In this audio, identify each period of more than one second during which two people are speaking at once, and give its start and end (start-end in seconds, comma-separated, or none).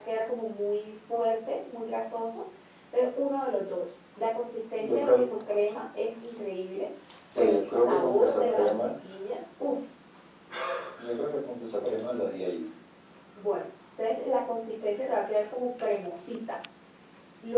7.4-8.9